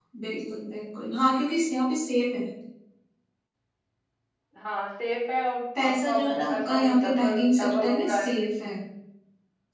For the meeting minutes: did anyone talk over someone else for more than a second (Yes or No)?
Yes